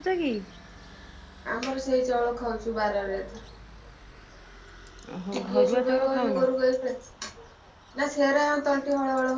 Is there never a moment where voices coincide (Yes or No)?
No